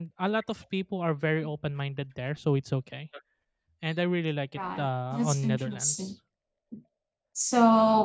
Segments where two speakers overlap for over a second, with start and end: 4.6-6.1

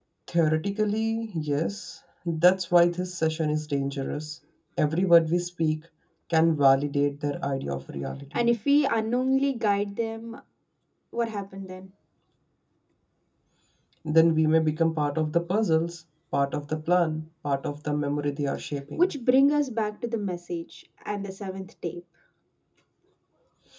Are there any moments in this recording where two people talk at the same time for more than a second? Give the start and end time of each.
none

